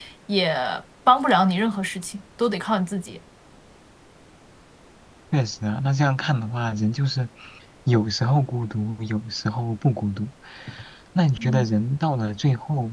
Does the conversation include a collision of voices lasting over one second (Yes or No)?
No